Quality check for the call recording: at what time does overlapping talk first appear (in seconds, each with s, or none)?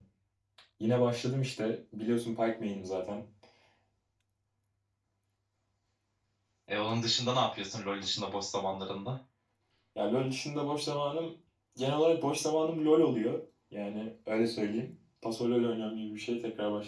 none